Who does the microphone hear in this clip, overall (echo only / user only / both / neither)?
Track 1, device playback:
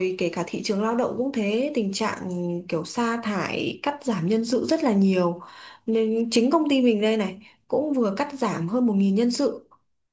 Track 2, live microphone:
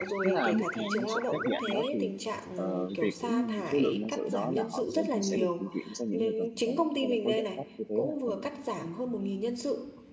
both